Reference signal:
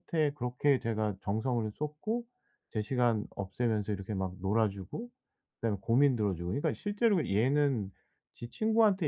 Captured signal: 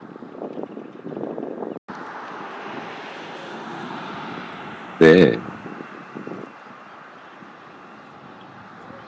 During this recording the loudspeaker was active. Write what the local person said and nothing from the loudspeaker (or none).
네.